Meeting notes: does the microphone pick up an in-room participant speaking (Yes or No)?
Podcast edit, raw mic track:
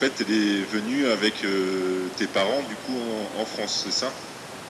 No